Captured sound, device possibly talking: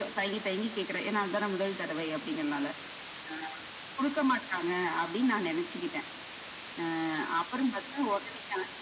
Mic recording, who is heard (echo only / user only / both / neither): echo only